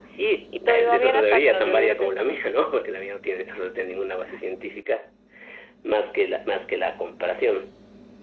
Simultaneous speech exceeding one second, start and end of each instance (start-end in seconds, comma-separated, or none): 0.7-2.4